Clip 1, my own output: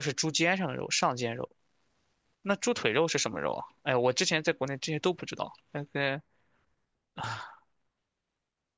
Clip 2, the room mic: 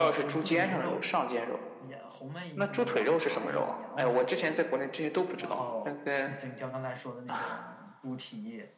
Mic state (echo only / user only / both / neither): both